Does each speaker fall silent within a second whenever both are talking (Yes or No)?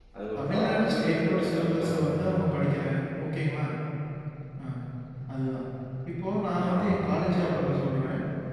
No